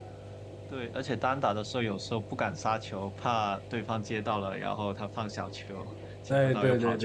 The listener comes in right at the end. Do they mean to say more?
Yes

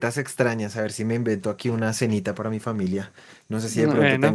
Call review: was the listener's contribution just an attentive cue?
Yes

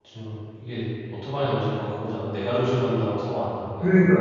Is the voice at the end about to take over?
Yes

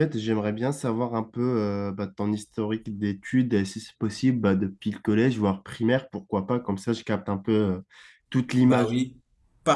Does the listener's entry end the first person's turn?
Yes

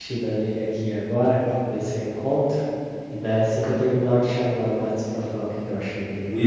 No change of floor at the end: No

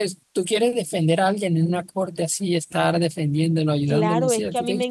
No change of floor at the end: No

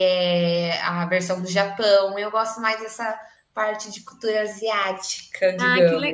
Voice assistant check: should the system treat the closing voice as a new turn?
Yes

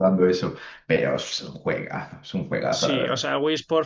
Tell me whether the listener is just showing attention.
No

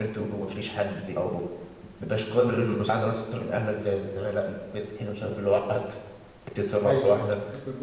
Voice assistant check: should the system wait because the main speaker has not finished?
No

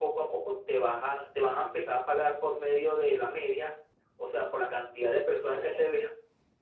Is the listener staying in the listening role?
Yes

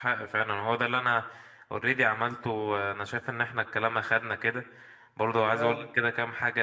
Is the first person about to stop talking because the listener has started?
No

